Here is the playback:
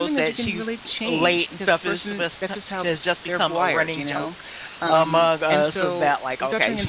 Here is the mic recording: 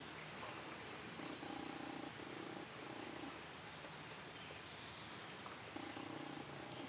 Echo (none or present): none